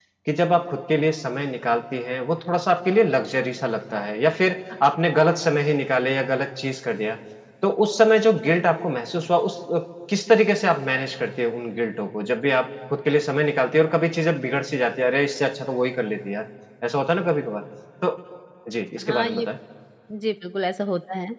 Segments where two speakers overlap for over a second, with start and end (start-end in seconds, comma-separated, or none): none